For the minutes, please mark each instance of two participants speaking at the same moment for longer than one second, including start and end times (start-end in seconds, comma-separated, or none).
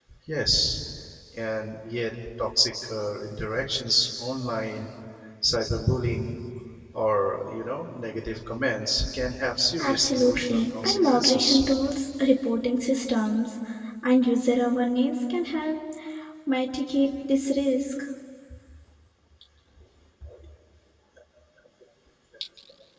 9.8-11.6